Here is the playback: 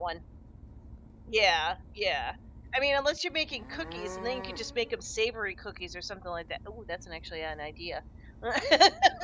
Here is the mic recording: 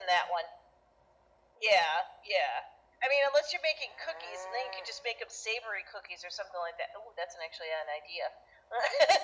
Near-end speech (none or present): none